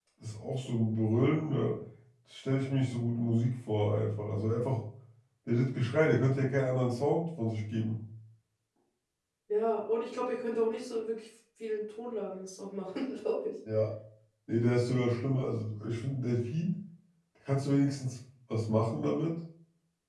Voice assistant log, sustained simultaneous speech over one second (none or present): none